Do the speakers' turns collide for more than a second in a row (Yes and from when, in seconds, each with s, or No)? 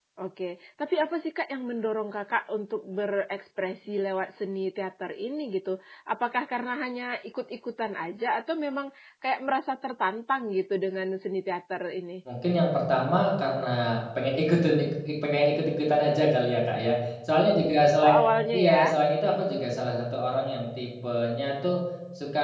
No